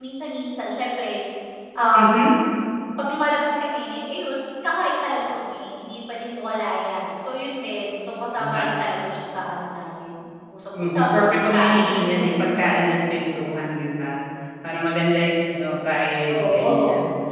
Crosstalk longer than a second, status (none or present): present